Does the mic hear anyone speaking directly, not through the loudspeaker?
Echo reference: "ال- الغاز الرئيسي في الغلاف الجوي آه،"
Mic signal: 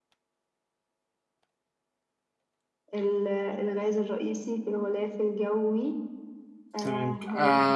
Yes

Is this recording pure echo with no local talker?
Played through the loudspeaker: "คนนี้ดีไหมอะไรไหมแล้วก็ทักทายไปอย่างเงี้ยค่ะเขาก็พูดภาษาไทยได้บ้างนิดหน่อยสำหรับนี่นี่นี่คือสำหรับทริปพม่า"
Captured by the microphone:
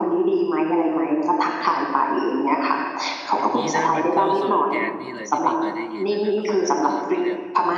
No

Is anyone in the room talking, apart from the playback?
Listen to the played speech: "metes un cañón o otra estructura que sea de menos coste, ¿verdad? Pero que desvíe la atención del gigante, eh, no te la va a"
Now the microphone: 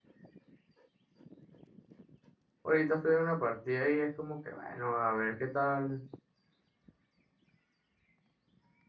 Yes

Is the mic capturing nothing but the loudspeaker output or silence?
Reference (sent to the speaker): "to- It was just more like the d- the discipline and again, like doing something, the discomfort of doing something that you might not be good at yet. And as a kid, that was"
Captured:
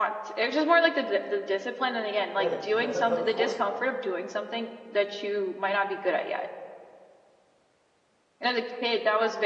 No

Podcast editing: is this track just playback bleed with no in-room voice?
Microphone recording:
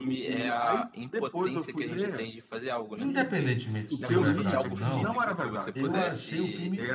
No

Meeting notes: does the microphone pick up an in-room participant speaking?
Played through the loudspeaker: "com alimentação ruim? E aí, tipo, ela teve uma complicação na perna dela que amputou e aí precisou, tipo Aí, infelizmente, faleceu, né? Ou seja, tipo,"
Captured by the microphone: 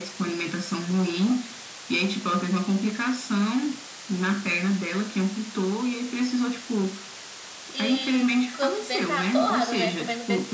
Yes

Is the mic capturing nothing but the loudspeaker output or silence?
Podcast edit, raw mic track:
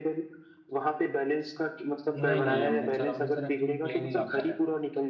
No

